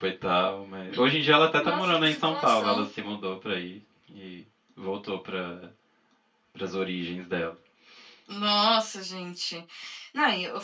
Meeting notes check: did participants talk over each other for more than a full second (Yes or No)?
Yes